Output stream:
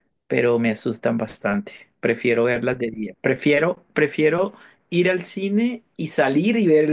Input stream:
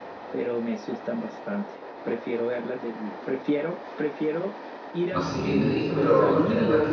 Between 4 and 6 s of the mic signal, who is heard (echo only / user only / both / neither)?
both